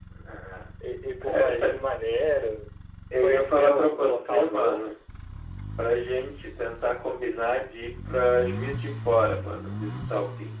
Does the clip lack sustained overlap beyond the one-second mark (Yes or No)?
No